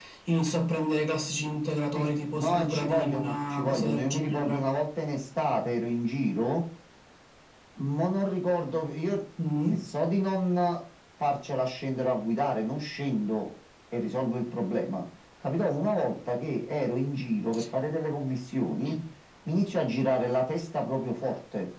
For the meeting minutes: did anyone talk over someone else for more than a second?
Yes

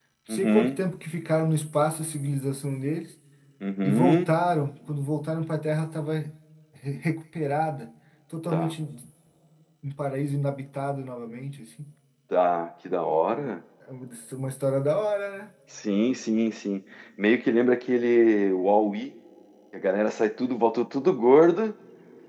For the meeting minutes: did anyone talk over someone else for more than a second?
No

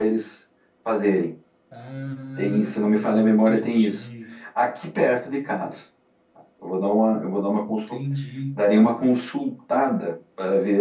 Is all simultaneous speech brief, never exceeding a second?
No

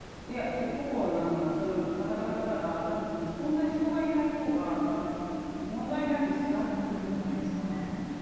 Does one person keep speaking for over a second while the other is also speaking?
Yes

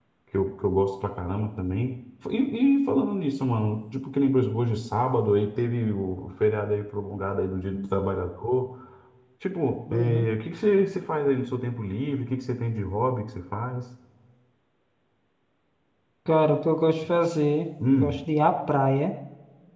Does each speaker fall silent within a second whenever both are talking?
Yes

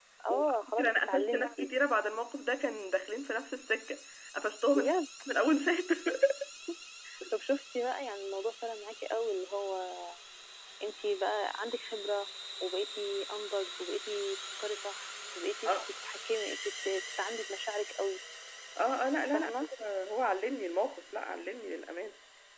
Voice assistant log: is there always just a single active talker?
No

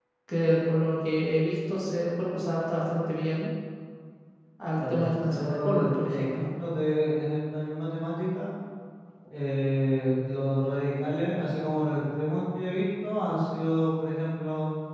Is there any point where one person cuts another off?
Yes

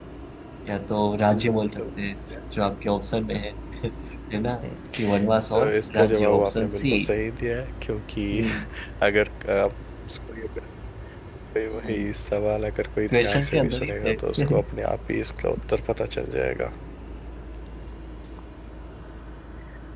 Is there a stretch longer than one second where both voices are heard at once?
Yes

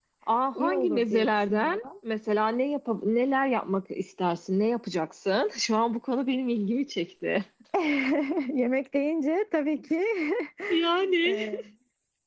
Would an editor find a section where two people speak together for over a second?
Yes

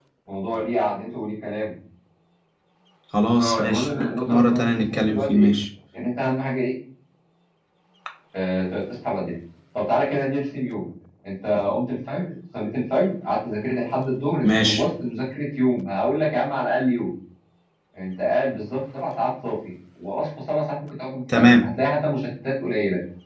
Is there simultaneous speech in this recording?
Yes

